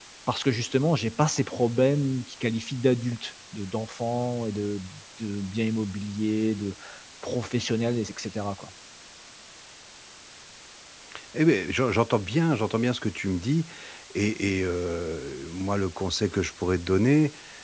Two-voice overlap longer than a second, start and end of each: none

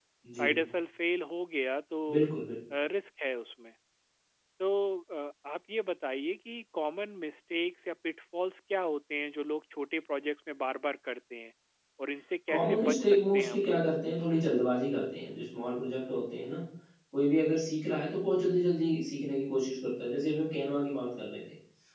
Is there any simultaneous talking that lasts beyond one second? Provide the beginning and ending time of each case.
12.5-13.8

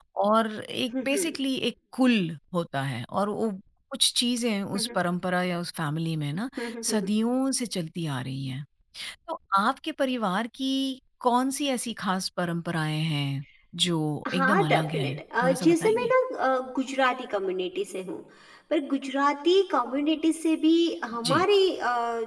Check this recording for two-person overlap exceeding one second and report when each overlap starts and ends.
14.3-16.1

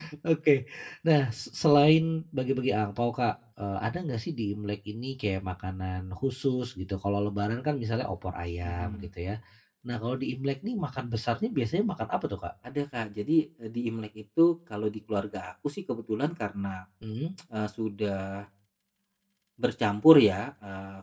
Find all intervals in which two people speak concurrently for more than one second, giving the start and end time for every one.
none

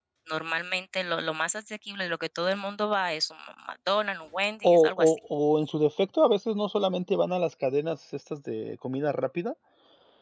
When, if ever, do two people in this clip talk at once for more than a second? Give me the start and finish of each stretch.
none

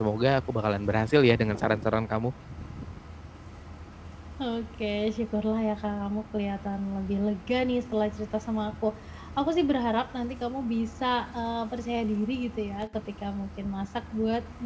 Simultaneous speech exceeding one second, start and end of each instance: none

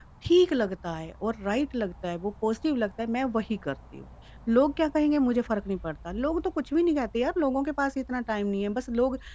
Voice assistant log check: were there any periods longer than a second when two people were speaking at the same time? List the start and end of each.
none

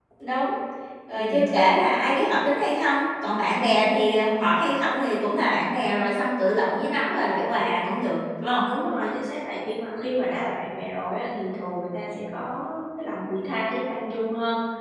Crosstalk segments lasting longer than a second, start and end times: none

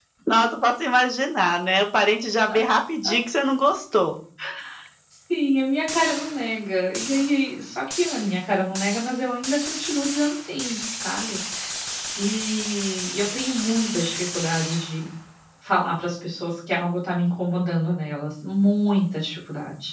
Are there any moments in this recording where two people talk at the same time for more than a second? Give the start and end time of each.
none

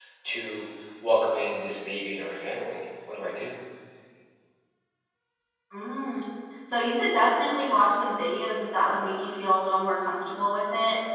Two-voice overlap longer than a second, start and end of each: none

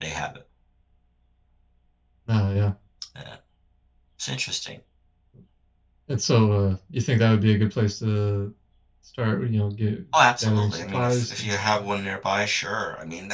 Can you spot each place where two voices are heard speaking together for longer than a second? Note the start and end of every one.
10.4-11.8

